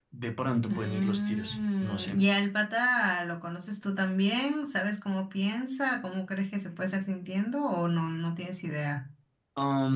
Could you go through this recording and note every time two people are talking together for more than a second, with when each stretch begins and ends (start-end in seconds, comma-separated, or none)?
0.6-2.2